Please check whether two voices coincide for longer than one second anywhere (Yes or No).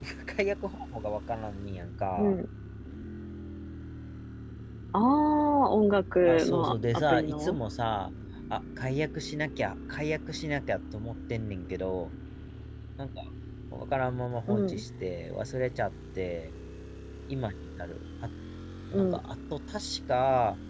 Yes